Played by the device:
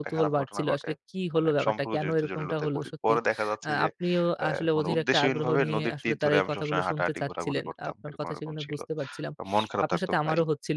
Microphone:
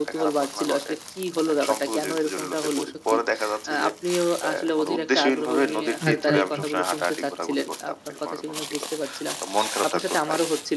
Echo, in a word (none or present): present